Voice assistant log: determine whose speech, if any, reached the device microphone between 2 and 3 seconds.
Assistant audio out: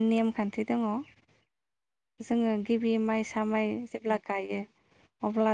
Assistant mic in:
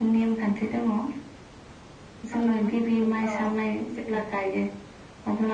both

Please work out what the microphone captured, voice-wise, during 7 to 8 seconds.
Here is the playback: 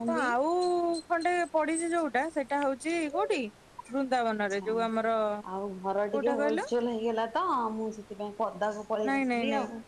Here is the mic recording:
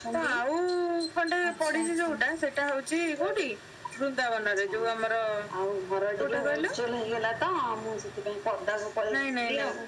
echo only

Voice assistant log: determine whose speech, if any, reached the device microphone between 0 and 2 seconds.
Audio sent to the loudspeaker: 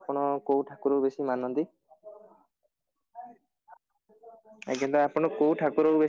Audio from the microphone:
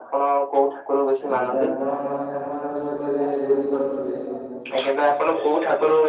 both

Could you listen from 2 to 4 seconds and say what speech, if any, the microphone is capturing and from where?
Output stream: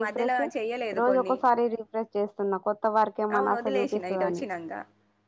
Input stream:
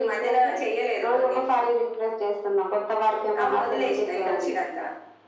echo only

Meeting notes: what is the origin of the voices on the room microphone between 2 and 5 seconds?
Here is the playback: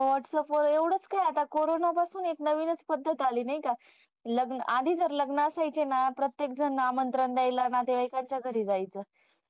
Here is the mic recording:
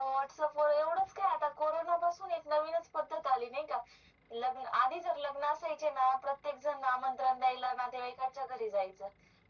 echo only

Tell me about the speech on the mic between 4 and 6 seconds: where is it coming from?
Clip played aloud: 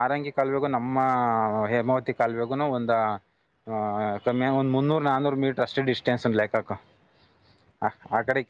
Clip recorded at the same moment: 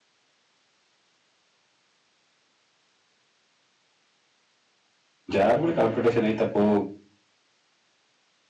user only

